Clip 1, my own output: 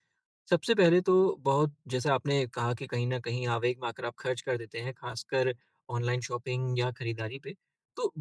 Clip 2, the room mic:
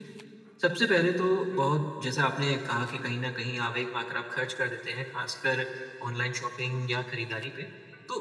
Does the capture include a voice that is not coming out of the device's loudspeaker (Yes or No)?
No